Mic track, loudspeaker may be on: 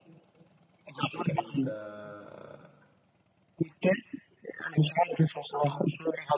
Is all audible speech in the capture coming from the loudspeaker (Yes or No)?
No